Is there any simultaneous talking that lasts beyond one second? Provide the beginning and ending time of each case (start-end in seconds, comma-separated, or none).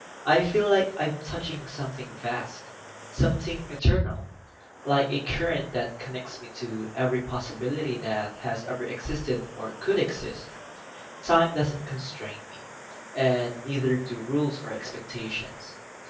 none